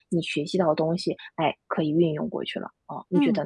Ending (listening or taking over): taking over